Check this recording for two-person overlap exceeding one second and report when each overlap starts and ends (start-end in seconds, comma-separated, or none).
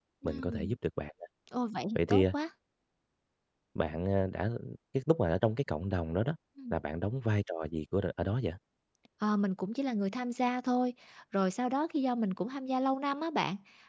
none